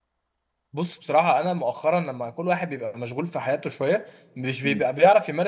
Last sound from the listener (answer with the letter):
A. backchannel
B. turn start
A